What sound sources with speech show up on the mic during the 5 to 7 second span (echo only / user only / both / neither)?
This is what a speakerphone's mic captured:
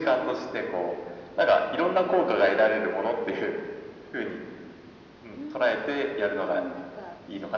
both